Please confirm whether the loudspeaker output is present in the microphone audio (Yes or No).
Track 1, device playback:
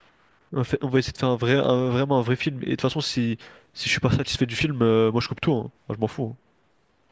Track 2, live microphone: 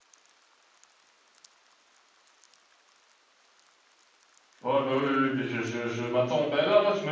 No